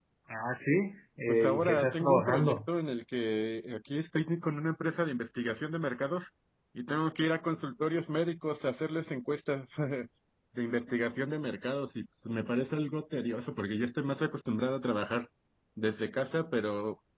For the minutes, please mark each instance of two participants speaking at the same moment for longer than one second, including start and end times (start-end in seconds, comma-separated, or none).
1.3-2.6